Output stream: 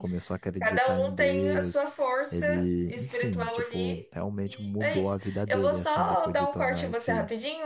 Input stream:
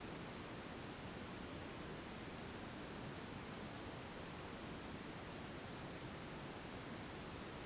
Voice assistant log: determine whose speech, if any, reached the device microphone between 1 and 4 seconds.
neither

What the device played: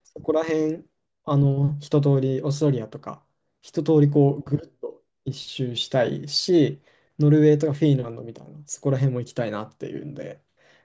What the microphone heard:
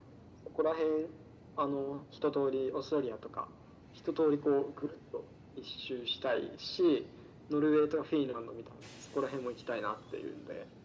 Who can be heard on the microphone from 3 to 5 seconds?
echo only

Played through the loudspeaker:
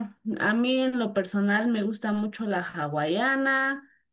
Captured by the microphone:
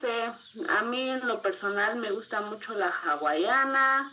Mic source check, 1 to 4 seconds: echo only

